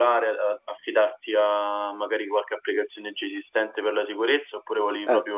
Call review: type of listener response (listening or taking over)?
taking over